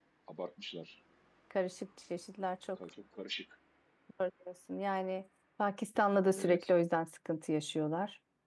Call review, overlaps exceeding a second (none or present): none